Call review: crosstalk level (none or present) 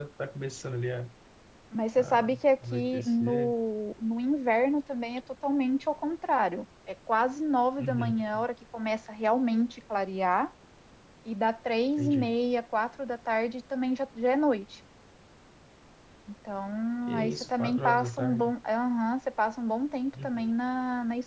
present